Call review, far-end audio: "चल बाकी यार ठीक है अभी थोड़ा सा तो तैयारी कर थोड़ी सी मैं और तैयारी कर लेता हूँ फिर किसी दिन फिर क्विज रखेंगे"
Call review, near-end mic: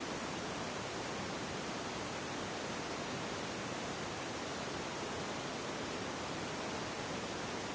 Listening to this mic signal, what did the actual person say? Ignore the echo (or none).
none